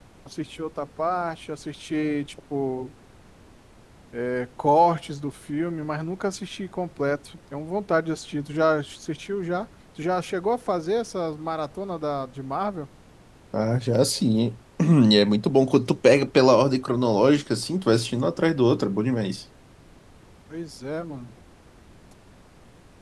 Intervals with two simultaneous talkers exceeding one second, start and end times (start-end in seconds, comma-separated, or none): none